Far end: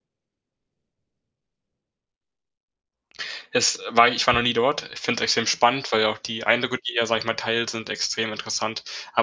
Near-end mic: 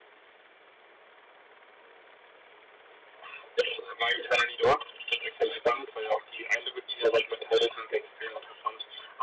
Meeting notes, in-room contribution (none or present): none